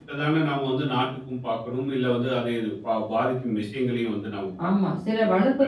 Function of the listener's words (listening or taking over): taking over